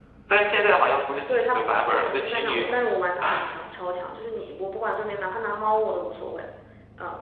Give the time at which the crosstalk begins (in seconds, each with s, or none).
1.3 s